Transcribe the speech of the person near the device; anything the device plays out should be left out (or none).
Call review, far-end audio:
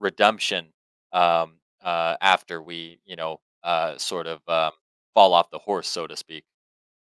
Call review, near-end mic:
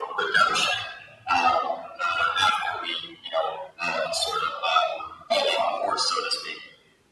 none